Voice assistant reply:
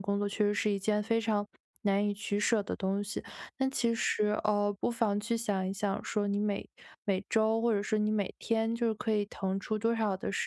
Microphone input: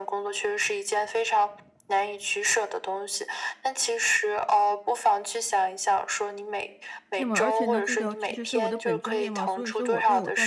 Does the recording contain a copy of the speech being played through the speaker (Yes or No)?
Yes